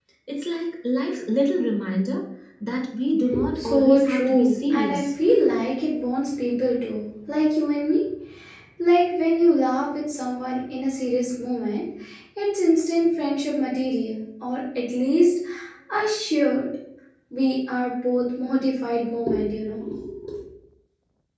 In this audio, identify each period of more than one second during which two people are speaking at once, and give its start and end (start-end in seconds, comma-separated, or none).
3.5-5.0